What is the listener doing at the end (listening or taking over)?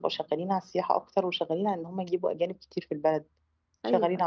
listening